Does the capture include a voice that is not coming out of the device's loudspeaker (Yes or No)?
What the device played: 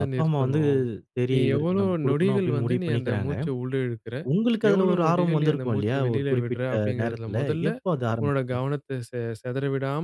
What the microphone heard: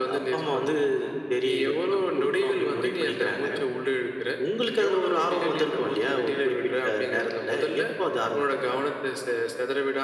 No